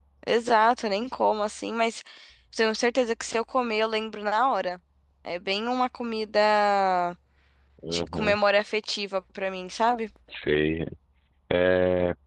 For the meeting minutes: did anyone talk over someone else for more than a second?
No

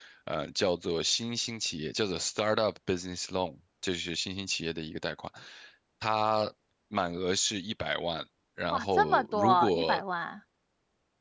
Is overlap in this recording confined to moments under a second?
No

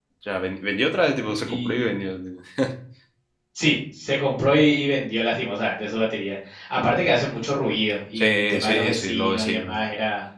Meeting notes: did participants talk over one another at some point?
Yes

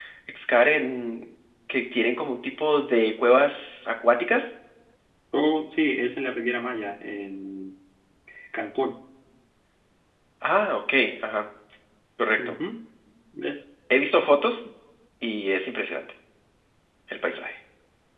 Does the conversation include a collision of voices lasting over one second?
No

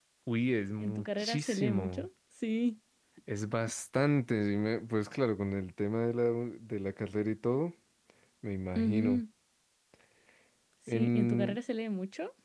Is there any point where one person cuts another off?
Yes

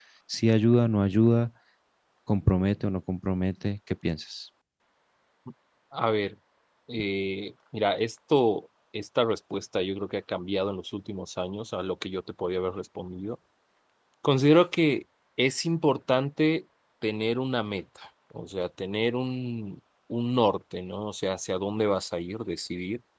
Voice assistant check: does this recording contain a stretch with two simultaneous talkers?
No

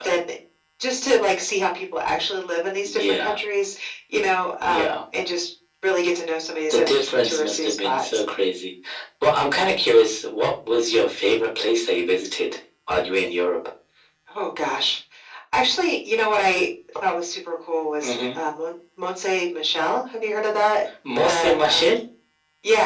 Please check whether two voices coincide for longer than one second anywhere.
Yes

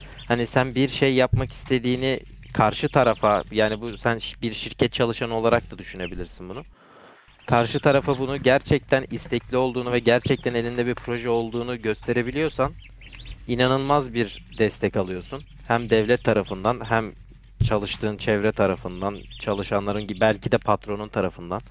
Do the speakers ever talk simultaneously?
No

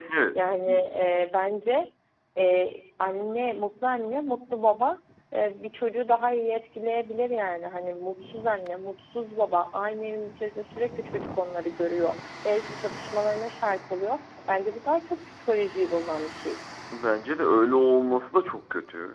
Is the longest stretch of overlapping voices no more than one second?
Yes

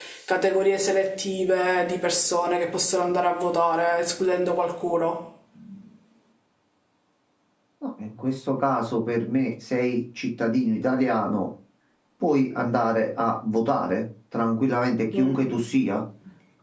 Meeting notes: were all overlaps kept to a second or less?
Yes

